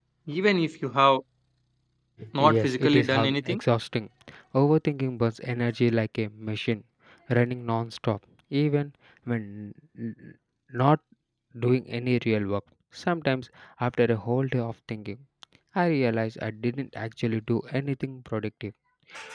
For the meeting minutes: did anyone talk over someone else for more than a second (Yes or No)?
Yes